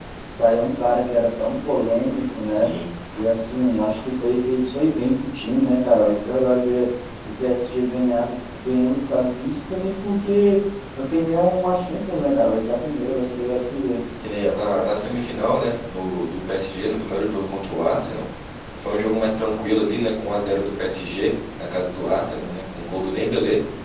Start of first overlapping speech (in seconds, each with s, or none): none